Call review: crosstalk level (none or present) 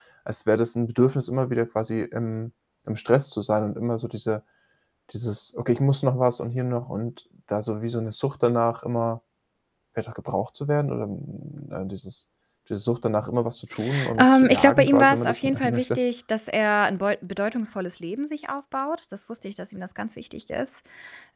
present